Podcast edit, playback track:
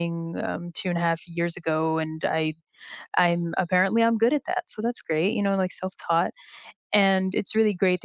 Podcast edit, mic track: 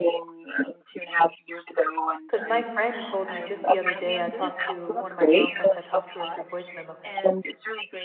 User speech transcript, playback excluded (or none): Because my friend told me just the other day, I talked to one of my girlfriends, I talked to her through voice memo,